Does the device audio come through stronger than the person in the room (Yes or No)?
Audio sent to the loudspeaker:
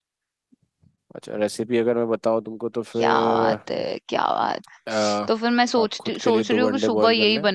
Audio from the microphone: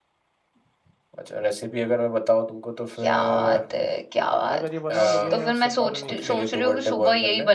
Yes